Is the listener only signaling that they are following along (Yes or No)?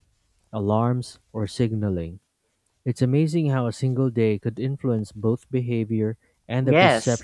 No